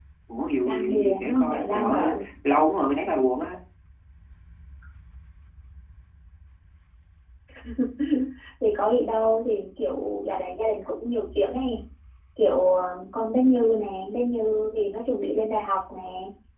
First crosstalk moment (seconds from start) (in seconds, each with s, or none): 0.6 s